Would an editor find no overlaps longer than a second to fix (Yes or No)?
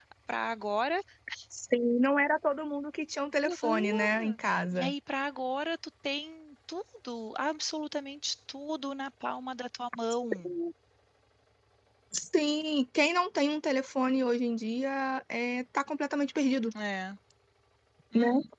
No